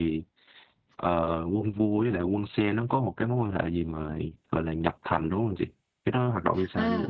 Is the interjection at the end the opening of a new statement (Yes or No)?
Yes